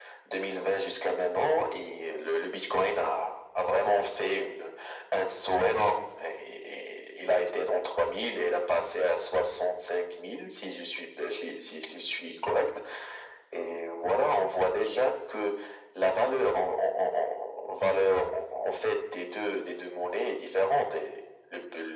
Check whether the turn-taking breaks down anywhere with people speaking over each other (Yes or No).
No